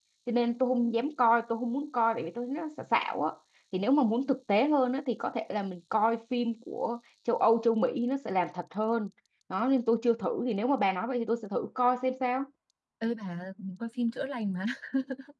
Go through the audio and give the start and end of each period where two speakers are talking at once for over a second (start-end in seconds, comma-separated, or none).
none